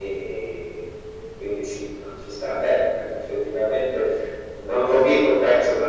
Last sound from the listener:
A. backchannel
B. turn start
A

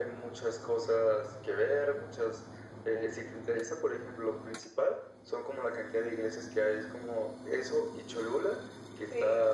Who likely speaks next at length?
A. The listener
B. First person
B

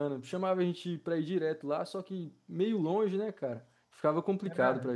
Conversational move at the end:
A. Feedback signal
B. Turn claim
B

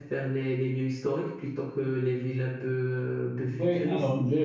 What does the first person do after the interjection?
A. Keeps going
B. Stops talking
B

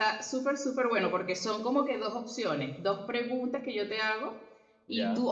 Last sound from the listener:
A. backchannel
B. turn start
A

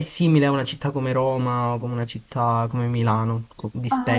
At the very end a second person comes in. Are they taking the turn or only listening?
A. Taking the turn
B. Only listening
A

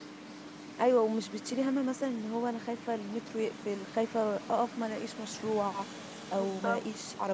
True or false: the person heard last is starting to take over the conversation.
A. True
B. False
B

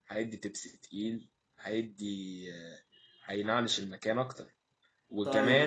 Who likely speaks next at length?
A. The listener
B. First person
B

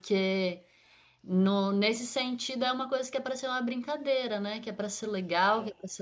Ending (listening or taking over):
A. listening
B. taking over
A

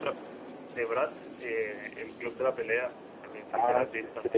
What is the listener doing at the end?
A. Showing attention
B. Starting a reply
B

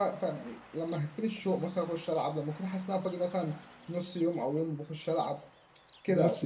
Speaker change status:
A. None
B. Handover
A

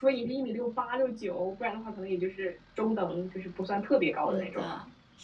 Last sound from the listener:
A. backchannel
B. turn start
B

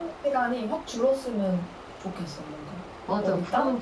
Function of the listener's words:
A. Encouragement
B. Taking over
B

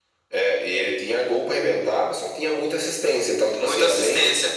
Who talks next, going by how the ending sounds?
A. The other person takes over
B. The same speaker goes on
B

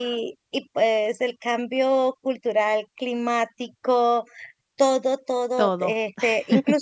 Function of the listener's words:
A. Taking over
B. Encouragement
B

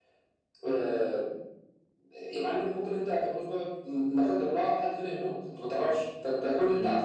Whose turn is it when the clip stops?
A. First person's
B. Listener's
A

